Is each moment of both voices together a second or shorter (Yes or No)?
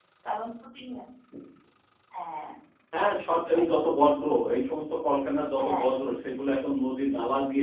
Yes